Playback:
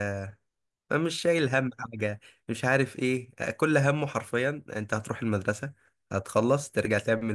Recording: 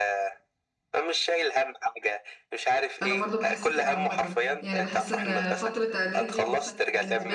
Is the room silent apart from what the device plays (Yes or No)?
No